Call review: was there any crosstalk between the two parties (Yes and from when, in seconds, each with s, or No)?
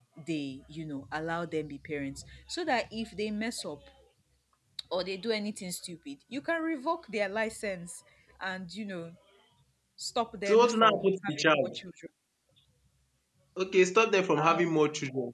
Yes, from 10.4 s